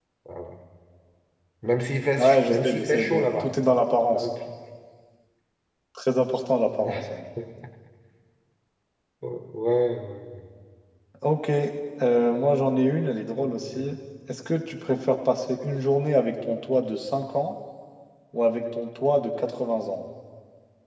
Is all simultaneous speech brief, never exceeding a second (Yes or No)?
No